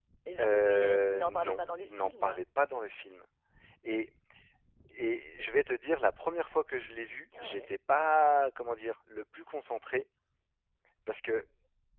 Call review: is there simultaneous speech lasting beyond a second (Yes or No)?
Yes